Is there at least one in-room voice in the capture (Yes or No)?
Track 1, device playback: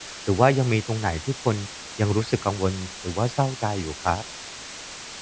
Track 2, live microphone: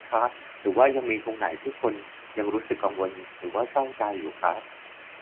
No